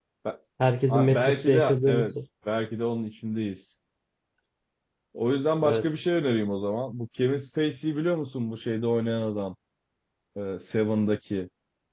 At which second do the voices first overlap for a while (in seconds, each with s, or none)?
0.9 s